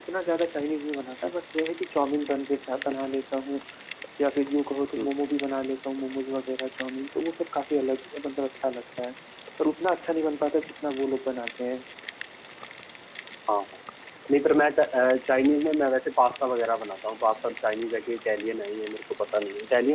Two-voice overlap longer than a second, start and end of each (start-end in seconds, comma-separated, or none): none